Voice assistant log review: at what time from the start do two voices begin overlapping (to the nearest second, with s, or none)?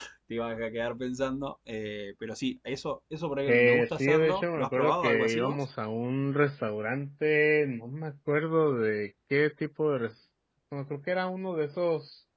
3 s